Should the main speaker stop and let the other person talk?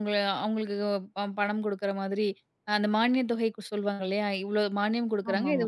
No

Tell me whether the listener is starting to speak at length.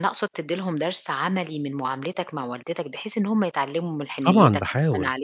Yes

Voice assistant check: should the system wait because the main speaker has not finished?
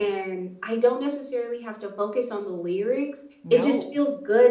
Yes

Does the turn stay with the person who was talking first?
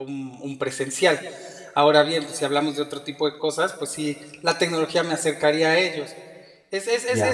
Yes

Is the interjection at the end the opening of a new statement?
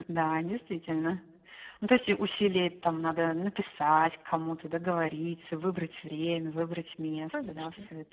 Yes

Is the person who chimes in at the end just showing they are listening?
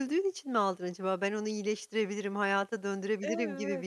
No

